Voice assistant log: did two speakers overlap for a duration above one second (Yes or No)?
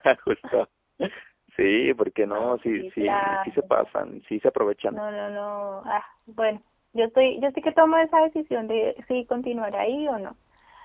Yes